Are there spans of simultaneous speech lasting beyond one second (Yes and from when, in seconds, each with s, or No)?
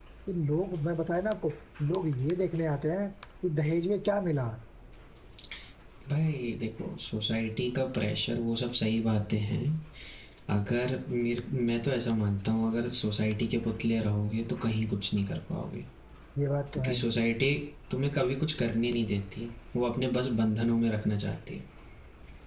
No